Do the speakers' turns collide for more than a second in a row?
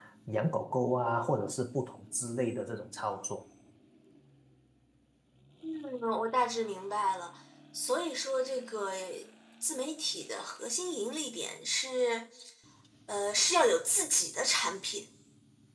No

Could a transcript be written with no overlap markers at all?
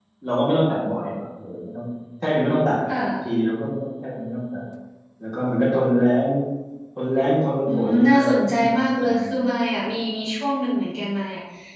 No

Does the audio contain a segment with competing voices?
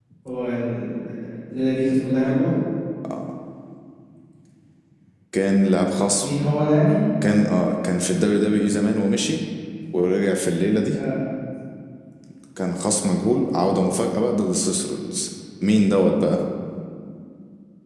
No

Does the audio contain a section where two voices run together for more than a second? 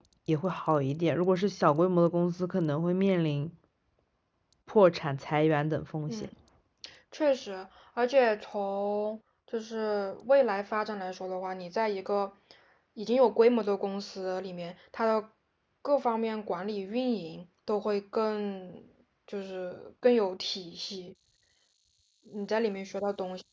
No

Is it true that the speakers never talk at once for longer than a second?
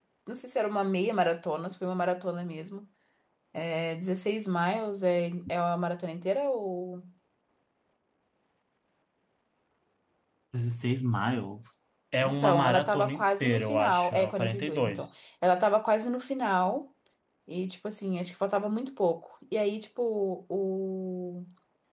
No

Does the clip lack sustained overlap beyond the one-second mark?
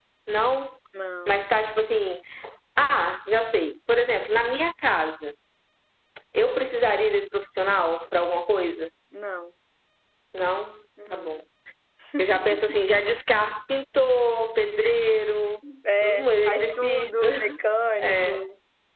No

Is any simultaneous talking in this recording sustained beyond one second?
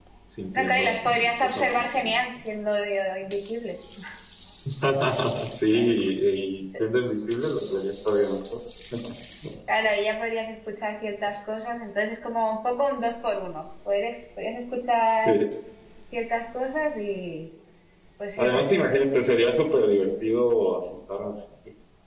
Yes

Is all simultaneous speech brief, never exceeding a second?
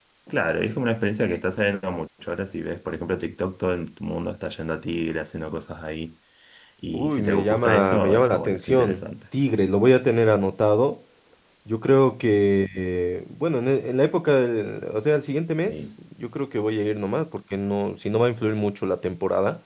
No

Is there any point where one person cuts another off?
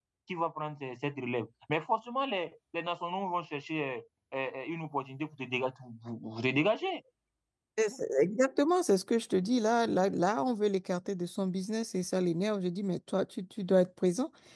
No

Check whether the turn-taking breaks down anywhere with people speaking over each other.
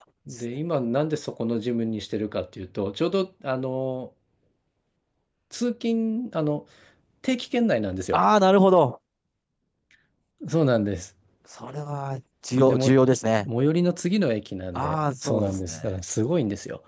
Yes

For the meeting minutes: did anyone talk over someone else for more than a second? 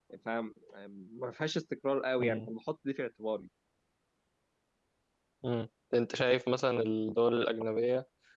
No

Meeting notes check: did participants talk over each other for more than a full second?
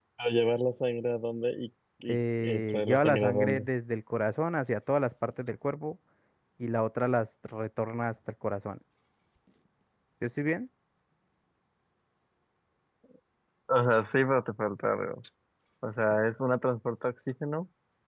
Yes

